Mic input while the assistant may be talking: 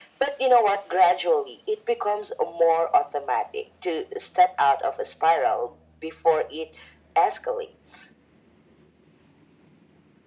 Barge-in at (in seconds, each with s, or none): none